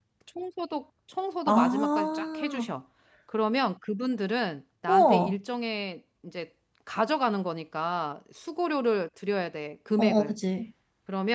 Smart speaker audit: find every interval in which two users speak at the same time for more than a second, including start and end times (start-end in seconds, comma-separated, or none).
1.5-2.7